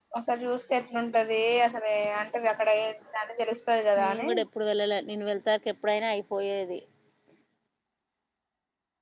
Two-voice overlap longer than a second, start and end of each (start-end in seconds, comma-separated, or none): none